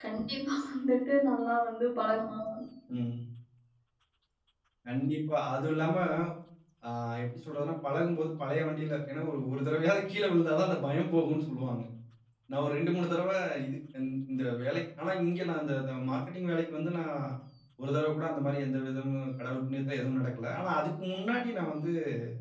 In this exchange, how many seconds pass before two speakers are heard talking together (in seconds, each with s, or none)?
none